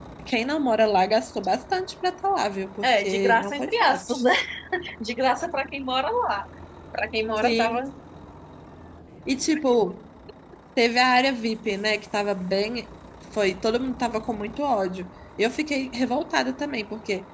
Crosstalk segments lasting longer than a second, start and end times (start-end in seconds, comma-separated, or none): 2.8-4.2